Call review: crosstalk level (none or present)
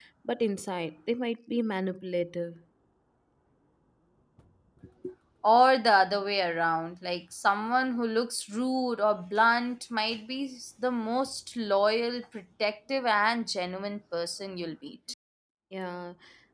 none